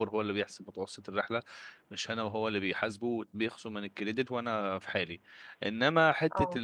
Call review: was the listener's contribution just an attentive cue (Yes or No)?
Yes